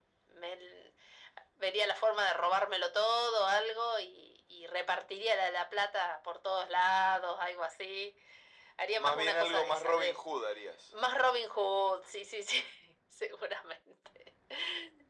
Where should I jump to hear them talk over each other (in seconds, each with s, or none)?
9.0 s